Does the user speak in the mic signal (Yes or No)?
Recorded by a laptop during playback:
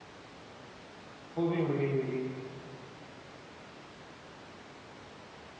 Yes